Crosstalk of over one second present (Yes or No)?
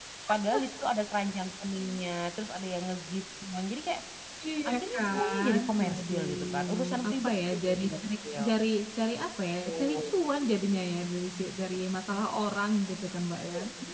Yes